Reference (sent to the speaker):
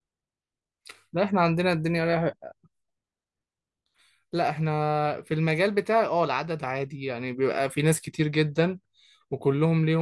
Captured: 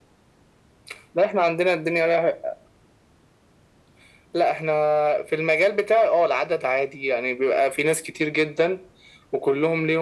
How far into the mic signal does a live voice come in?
none

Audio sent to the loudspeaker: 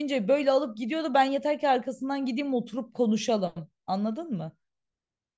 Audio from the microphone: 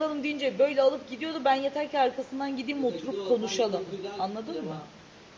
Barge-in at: 3 s

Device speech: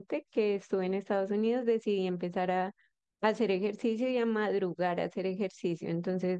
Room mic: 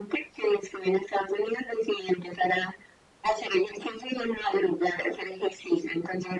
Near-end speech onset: none

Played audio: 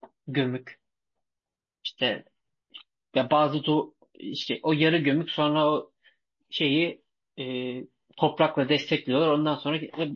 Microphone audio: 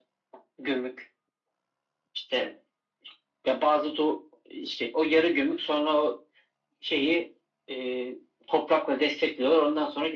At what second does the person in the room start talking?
none

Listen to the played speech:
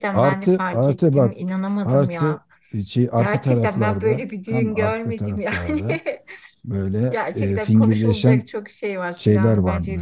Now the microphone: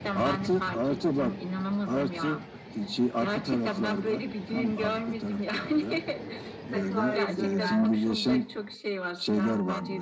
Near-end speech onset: 7 s

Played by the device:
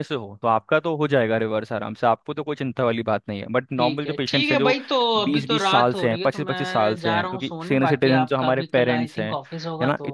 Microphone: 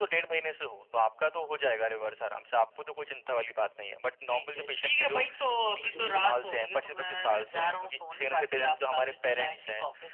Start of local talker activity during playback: 6 s

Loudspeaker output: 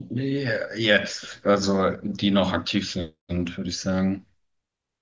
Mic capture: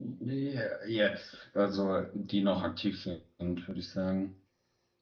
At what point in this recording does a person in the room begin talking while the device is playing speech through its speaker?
none

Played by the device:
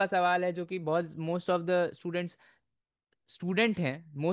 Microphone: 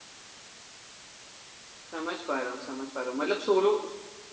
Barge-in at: 2 s

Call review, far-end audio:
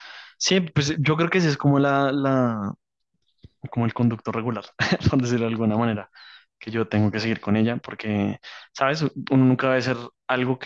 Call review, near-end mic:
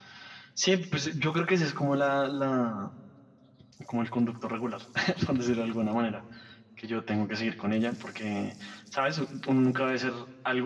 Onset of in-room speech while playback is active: none

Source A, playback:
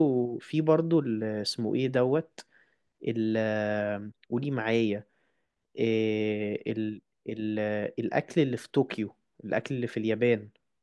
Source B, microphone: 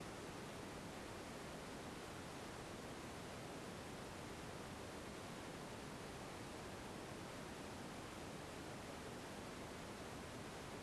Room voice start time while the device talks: none

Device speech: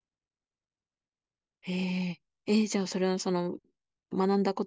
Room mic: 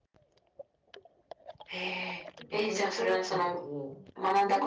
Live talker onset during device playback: 2 s

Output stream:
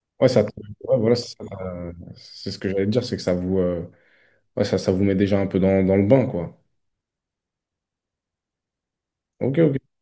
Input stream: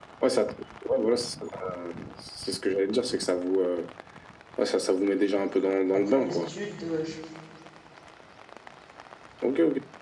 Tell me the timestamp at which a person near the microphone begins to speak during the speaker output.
6 s

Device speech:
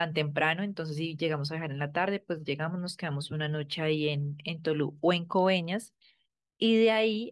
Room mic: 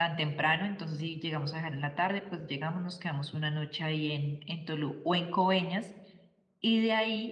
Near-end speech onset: none

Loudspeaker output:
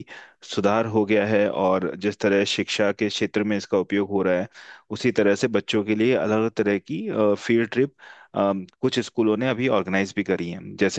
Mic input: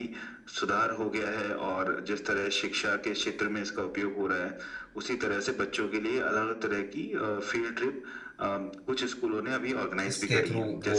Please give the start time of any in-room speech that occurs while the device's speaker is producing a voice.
10 s

